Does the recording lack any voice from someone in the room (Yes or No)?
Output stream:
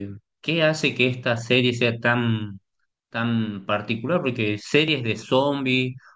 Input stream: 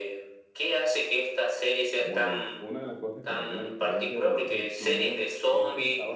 No